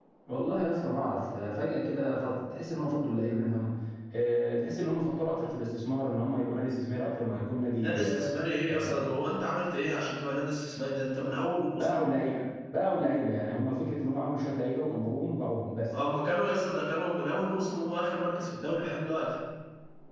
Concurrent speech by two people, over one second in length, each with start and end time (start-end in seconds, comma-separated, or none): none